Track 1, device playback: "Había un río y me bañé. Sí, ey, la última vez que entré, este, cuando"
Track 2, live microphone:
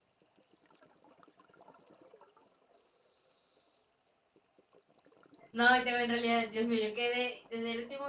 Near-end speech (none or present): present